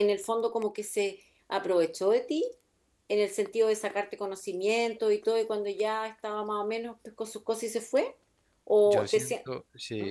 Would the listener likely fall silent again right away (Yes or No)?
No